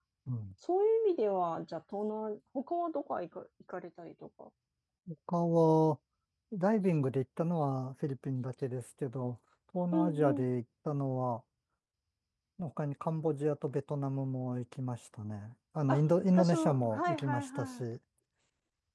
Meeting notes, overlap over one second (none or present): present